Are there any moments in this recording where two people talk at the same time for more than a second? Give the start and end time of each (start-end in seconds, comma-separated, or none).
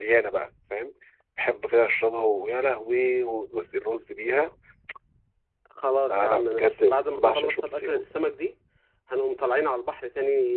6.1-8.0